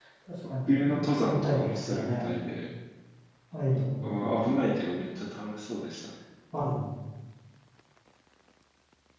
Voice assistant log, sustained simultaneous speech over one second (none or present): present